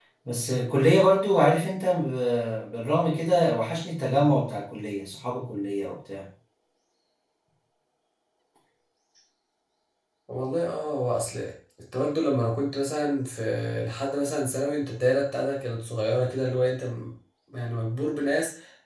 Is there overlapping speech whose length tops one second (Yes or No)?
No